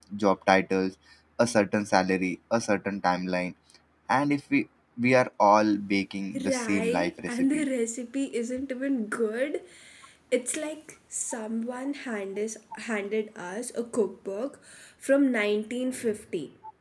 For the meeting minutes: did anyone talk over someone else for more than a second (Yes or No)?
Yes